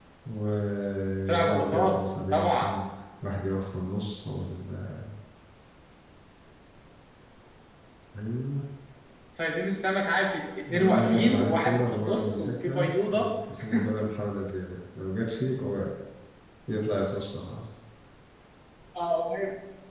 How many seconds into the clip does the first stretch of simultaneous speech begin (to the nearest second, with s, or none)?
1 s